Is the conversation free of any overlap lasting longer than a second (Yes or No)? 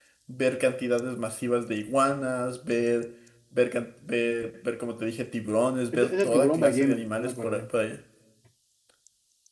No